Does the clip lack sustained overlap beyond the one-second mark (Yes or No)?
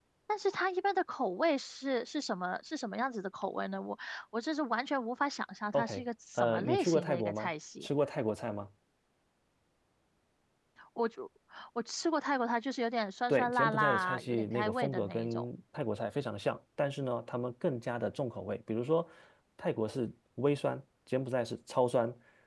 No